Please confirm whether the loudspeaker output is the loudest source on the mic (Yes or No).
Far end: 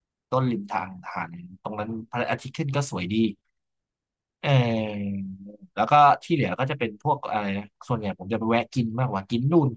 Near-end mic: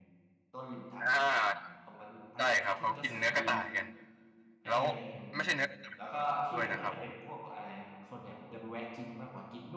No